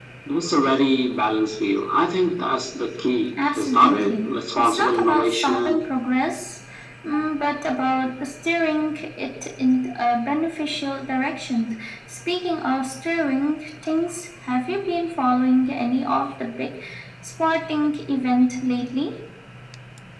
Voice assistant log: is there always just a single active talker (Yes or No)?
No